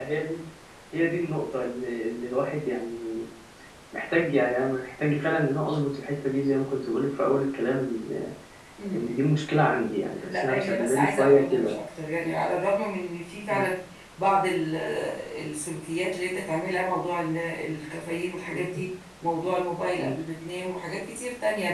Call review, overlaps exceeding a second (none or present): present